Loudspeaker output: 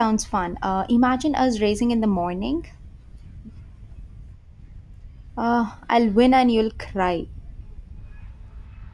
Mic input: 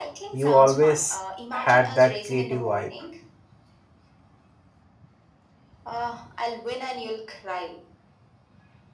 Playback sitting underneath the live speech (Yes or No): Yes